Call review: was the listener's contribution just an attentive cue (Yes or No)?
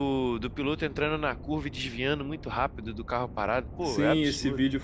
No